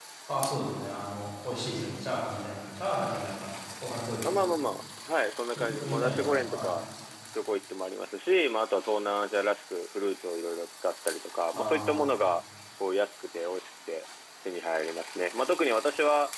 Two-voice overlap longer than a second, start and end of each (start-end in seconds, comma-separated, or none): 5.6-6.8